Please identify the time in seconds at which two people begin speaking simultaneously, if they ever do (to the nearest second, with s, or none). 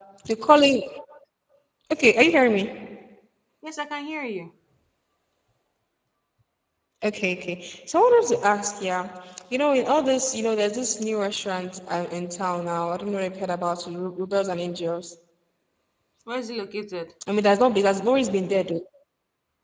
none